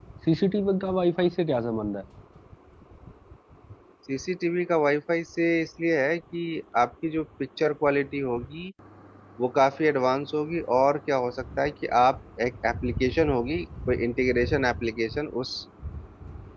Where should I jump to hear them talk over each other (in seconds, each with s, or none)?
none